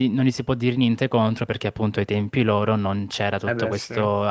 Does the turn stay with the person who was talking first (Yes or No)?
Yes